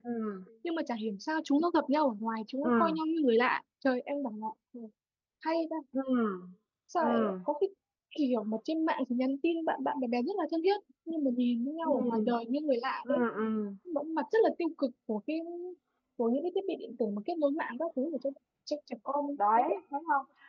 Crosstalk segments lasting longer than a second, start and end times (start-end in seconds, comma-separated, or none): none